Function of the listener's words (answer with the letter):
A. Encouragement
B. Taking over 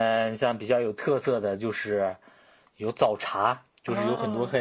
A